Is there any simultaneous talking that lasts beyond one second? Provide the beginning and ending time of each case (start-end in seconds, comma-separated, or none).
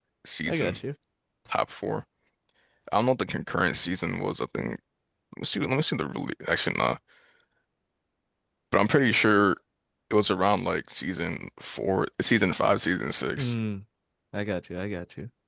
none